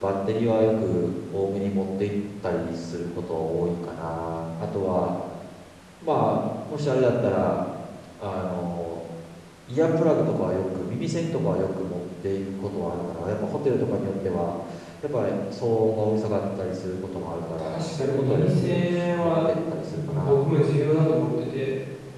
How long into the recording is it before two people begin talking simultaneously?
17.6 s

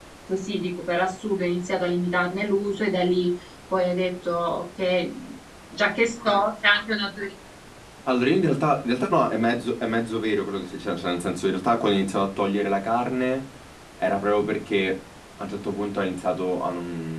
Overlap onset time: none

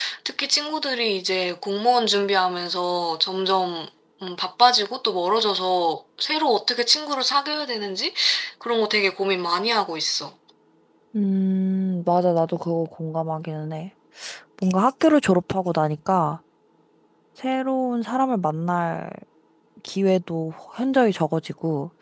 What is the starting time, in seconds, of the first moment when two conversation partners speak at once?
none

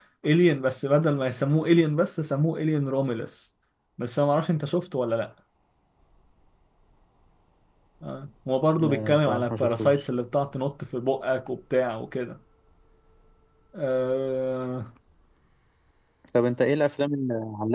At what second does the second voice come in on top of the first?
8.8 s

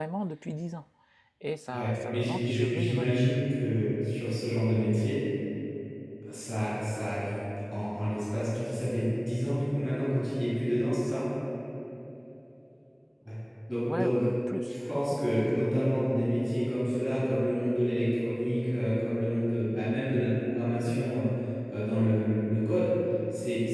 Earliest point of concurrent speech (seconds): 1.7 s

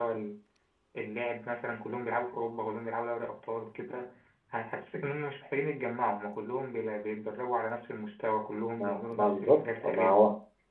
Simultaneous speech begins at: 8.8 s

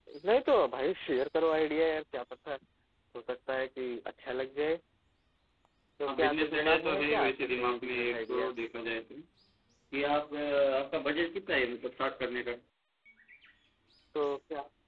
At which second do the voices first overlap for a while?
6.1 s

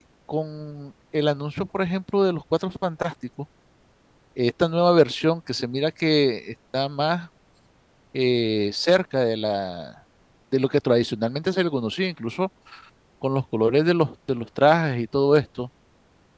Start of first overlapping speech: none

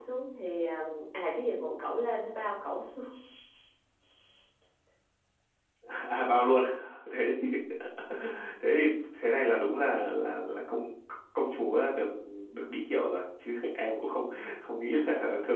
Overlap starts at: none

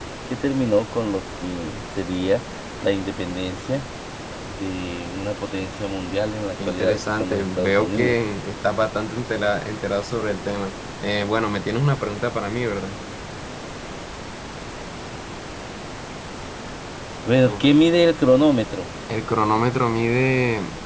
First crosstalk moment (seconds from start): 6.6 s

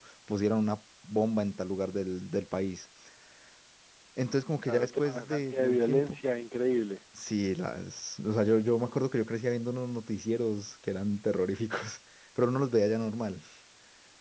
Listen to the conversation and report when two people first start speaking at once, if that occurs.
4.7 s

